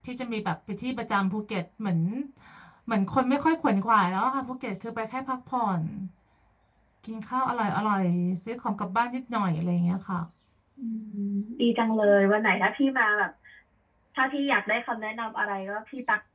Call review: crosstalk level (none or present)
none